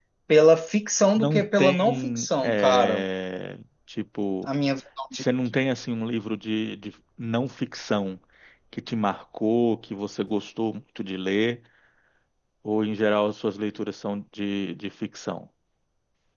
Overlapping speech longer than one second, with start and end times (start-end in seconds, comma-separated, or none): 1.2-3.0